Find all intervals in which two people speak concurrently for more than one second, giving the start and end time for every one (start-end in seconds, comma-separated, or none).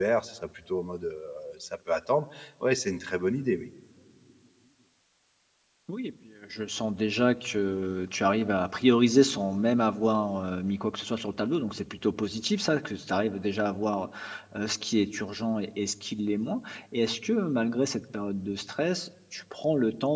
none